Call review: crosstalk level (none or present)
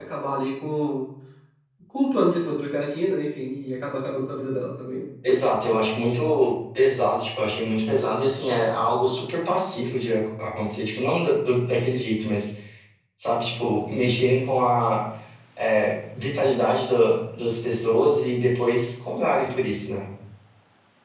none